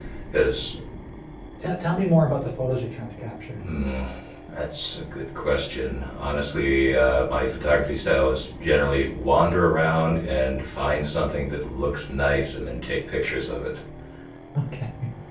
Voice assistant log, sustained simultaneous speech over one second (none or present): none